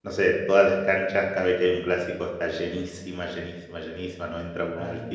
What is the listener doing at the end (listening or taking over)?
listening